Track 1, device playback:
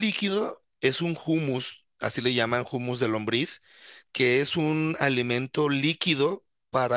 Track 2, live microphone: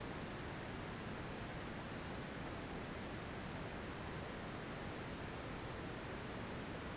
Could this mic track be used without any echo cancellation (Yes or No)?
Yes